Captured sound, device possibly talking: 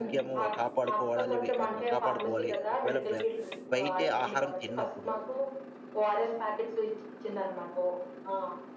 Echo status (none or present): present